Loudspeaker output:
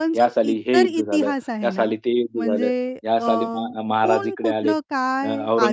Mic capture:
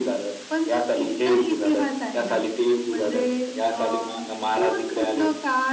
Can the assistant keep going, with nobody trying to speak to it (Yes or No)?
Yes